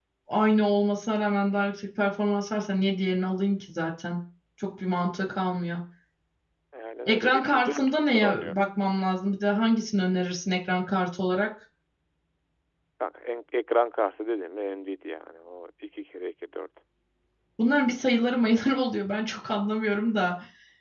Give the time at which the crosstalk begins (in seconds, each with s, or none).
7.1 s